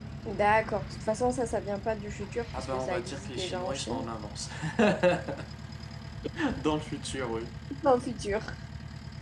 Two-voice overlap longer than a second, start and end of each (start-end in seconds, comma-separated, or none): 2.6-4.0